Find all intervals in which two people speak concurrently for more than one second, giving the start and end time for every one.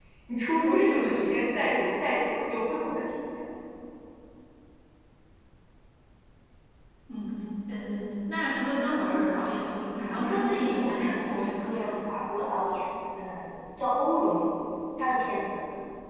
10.1-11.9

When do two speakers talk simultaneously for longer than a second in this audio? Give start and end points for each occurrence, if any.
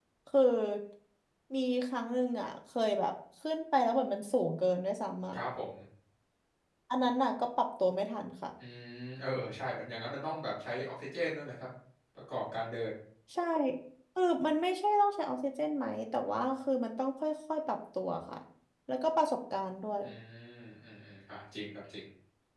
none

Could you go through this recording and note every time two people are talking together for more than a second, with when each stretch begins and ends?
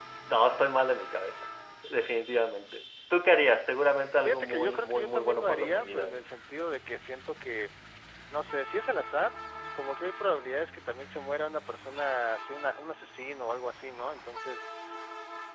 4.2-6.3

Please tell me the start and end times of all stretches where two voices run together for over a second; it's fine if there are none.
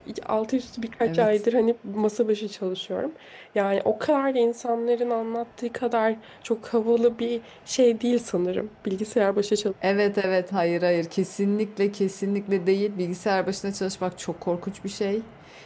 none

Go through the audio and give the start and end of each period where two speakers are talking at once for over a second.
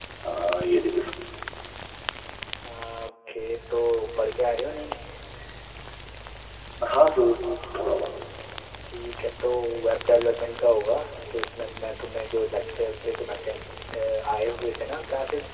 none

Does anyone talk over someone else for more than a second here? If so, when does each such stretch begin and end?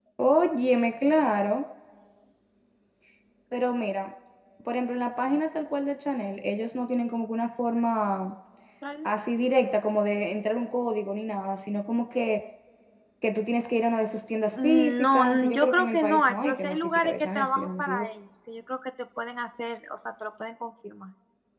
14.6-18.1

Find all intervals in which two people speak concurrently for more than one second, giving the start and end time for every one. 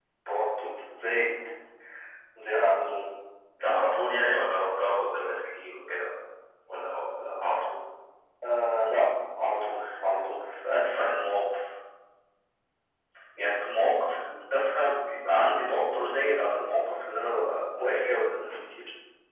none

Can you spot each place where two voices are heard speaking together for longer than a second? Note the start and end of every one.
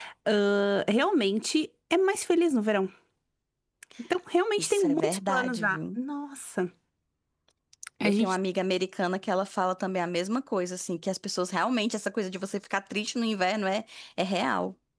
4.6-6.0

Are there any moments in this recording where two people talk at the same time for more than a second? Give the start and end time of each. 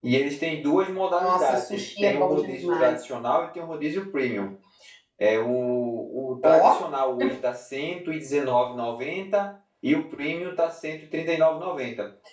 1.2-3.0

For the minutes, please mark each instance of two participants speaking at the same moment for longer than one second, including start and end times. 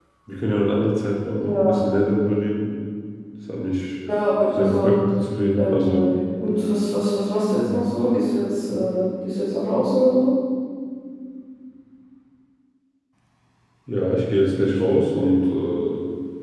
none

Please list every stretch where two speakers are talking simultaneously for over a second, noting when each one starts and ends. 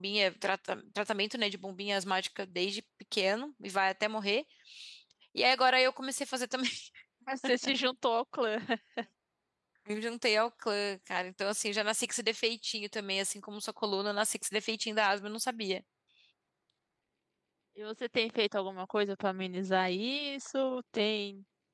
none

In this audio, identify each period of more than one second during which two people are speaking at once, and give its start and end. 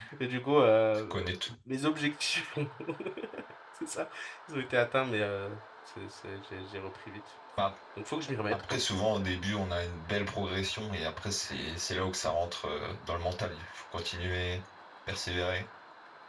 none

